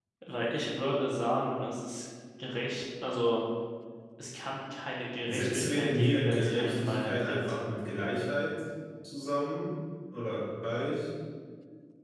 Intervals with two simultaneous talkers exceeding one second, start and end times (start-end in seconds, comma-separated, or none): 5.3-7.4